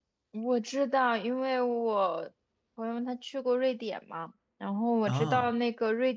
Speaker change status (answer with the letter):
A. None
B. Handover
A